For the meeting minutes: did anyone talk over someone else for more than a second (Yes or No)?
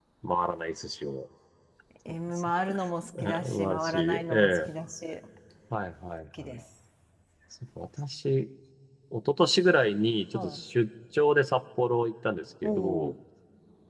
Yes